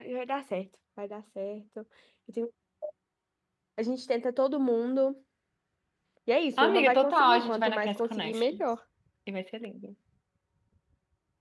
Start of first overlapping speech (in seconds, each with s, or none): 6.6 s